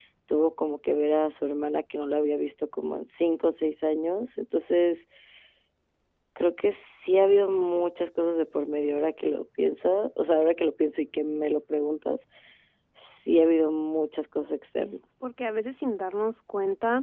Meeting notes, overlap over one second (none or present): none